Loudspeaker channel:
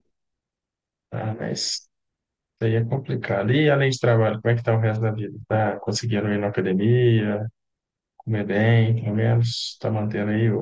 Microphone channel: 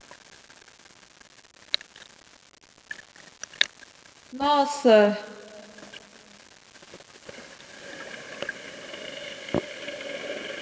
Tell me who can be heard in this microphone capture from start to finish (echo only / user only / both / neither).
user only